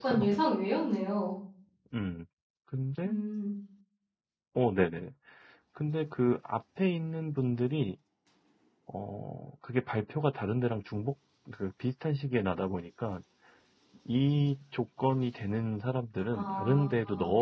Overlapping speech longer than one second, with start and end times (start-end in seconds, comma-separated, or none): none